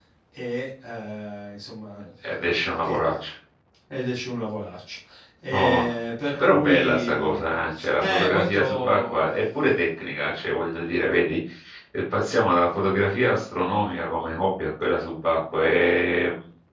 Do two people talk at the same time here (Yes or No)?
Yes